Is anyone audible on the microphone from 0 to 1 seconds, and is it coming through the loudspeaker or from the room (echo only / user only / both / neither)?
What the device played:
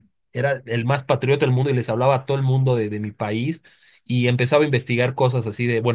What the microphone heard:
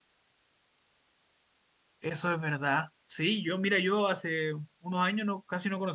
neither